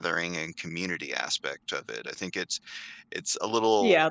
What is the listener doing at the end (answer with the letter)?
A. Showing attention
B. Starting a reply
B